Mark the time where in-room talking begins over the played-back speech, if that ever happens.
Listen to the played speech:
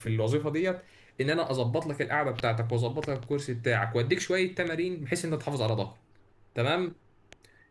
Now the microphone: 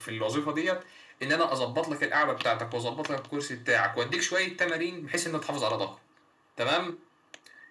none

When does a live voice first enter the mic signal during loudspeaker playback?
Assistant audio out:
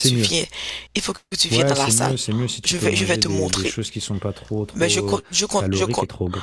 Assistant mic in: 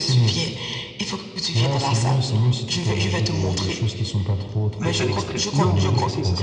4.8 s

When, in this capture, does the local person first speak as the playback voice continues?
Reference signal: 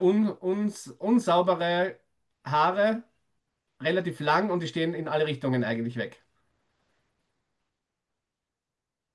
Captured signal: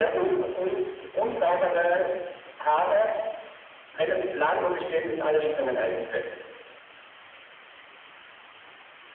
none

